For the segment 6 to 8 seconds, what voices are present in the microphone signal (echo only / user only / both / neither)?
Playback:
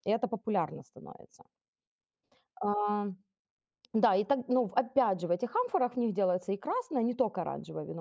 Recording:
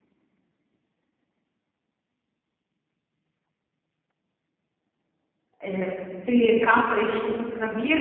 user only